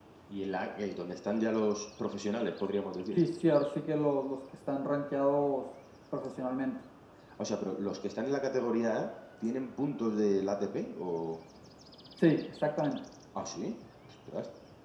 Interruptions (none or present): none